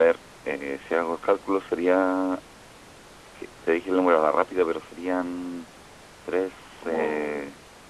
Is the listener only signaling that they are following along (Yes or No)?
No